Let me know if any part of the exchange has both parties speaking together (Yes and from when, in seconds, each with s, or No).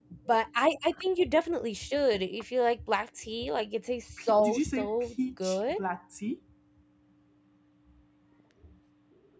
Yes, from 4.2 s